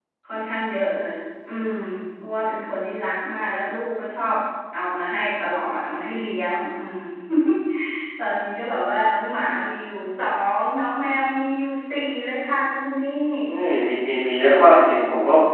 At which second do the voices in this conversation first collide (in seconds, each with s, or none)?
none